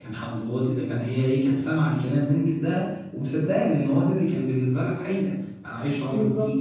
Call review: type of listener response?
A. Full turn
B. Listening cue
B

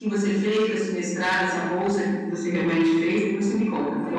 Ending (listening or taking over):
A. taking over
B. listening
A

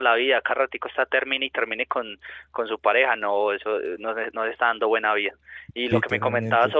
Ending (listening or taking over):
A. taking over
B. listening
B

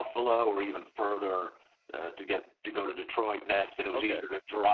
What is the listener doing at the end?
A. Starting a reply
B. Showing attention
B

